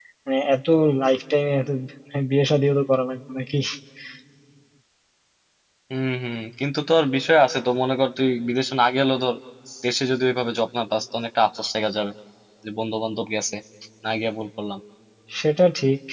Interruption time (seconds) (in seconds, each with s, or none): none